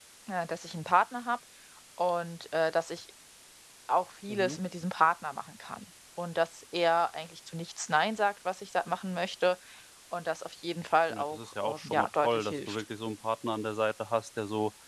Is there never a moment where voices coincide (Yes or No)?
No